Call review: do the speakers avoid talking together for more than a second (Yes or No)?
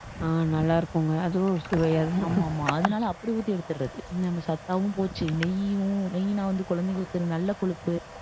Yes